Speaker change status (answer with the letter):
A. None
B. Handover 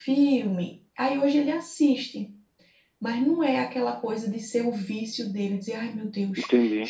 A